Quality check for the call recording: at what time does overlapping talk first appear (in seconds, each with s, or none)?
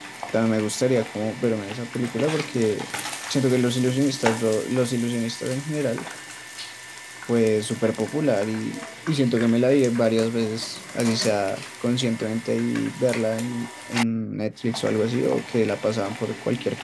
none